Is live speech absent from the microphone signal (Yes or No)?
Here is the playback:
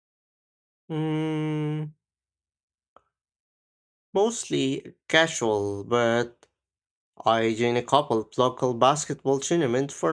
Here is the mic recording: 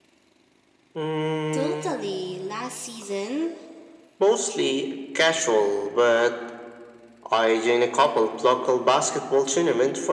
No